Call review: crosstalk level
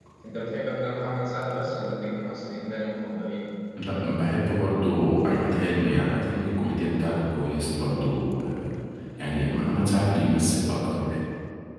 none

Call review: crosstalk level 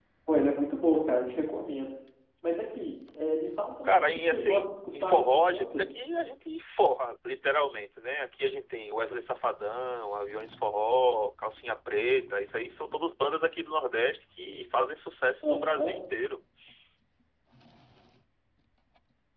present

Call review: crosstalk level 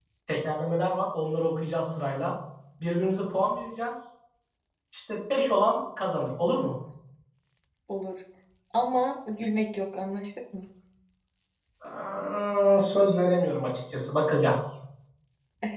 none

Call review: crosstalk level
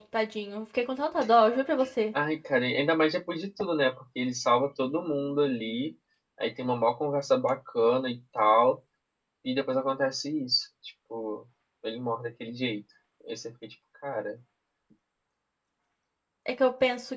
none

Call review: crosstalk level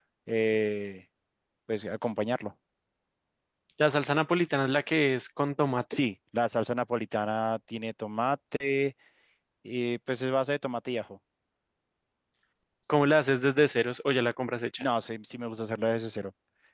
none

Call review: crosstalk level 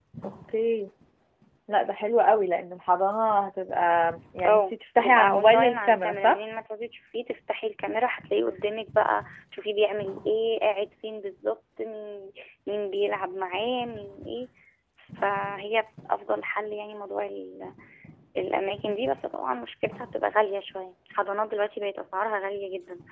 present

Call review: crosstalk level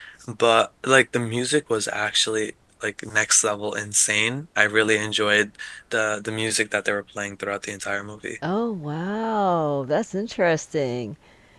none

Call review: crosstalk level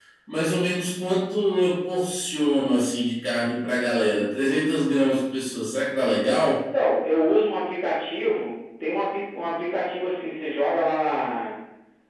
none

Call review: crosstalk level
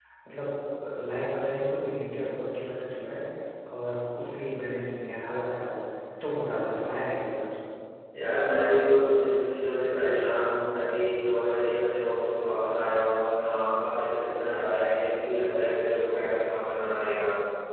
none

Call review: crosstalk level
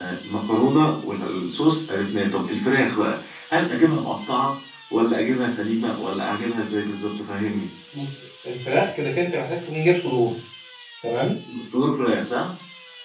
none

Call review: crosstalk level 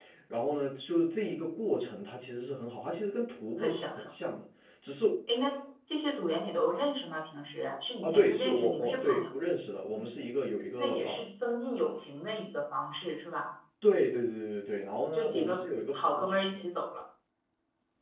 present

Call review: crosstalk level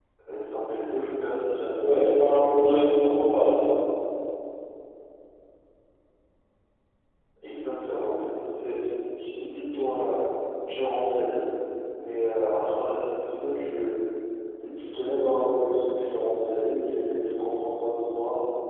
present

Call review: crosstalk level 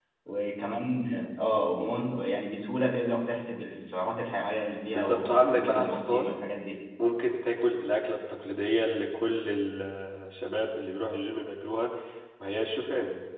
present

